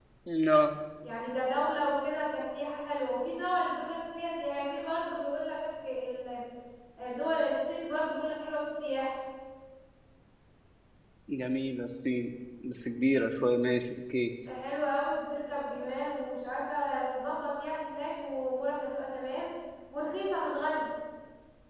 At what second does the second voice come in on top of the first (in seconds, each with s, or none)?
none